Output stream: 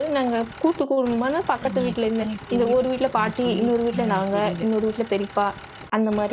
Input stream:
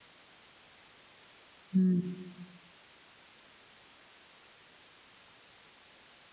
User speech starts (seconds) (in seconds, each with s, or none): 1.7 s